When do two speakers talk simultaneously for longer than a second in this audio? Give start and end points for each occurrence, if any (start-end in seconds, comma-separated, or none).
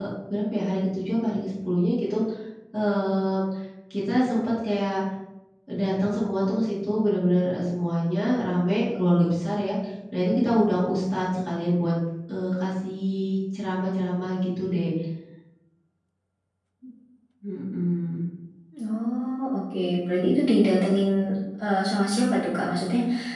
none